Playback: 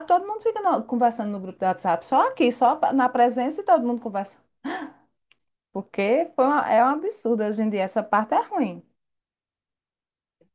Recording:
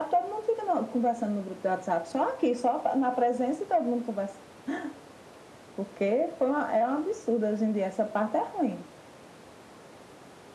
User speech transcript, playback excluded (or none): none